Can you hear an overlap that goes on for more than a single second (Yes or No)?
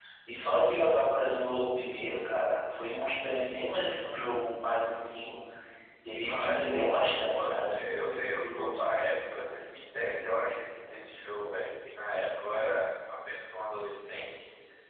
Yes